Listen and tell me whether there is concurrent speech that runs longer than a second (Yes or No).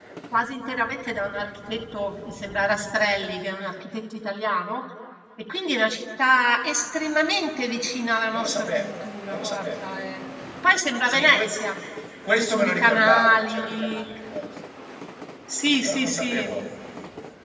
Yes